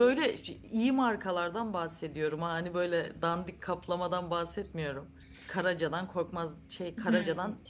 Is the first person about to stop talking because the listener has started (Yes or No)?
No